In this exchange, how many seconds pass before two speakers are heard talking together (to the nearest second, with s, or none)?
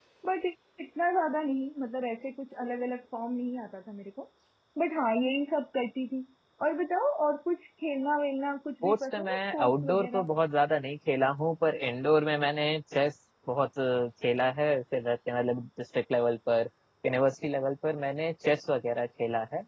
9 s